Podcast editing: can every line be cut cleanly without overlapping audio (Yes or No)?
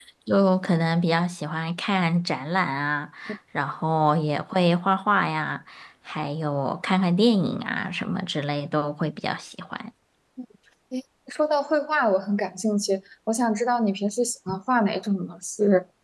Yes